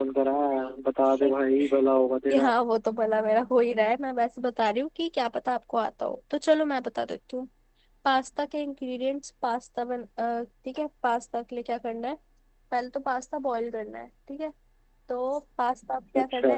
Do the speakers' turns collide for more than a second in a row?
No

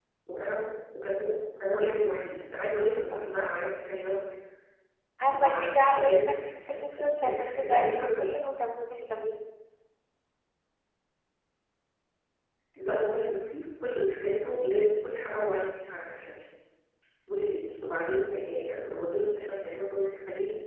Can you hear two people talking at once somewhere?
Yes, from 5.3 s

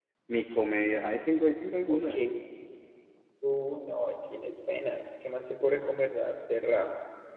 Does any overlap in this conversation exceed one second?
No

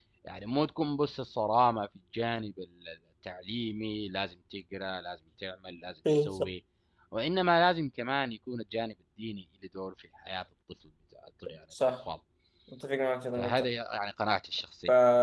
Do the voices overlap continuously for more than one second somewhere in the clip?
No

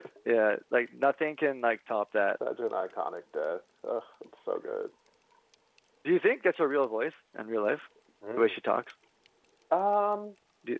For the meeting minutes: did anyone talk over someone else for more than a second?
No

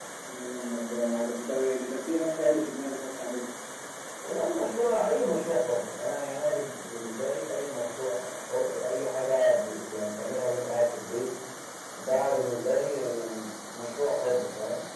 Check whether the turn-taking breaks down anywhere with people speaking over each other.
No

